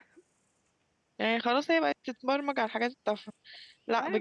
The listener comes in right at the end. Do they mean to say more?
No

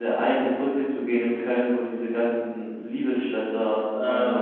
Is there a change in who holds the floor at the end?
Yes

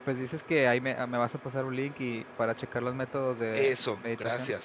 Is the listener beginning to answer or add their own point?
Yes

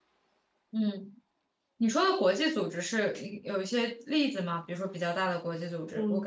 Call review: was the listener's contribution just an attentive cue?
No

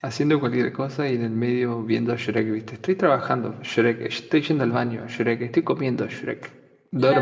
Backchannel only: No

